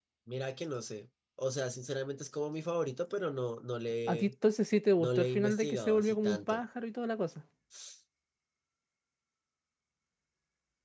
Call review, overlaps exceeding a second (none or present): present